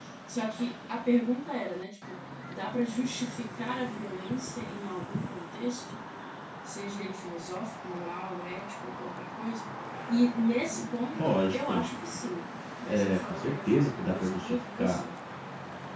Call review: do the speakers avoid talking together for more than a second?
No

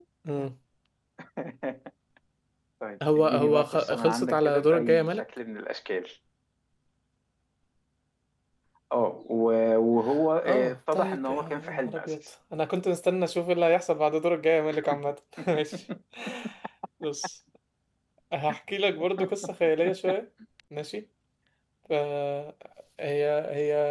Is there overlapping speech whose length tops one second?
Yes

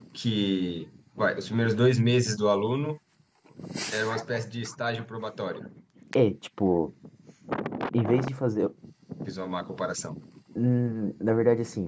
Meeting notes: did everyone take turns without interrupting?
Yes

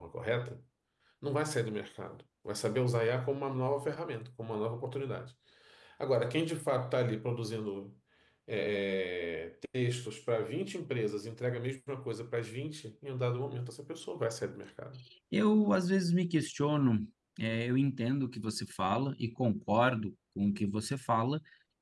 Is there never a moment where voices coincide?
Yes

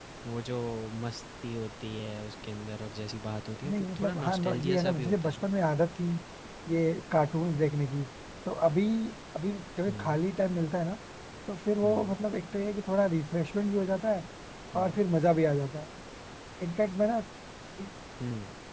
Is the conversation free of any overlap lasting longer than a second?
No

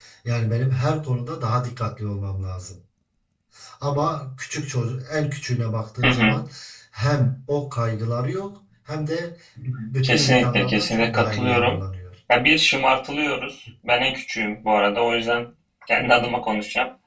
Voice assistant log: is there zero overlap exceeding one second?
No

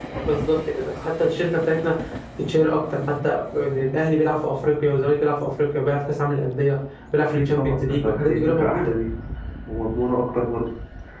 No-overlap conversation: No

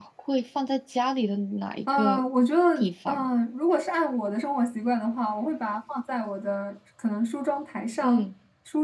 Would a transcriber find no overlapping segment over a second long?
Yes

